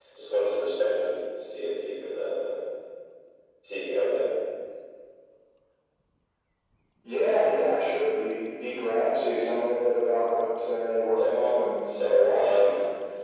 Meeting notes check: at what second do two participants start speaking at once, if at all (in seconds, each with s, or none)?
11.1 s